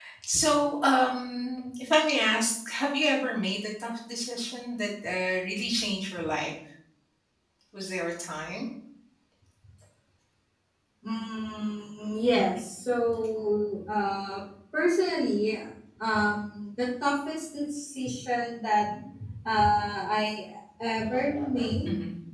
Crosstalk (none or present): none